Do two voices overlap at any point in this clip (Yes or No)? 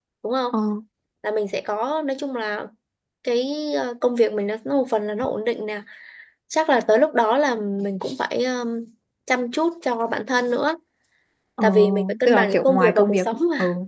Yes